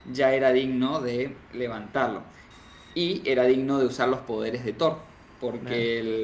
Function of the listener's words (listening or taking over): listening